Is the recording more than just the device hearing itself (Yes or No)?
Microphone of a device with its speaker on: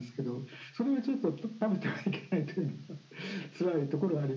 No